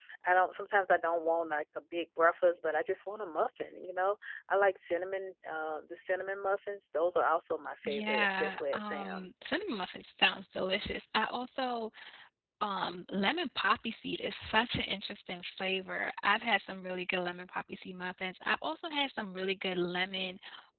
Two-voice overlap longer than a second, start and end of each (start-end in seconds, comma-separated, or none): 7.8-9.6